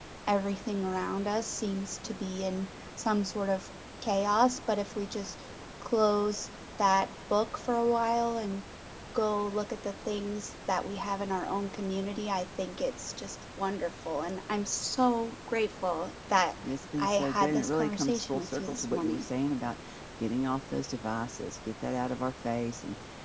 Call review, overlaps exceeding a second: present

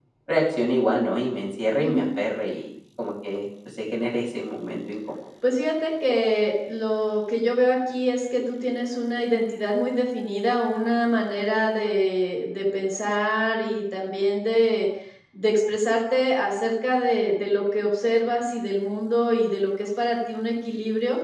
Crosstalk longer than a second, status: none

